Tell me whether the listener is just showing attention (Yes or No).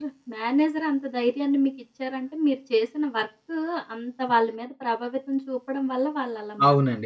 No